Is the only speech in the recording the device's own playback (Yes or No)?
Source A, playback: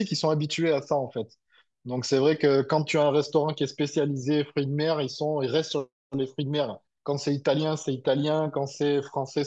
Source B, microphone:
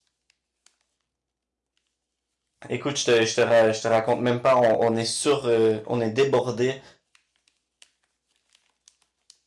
No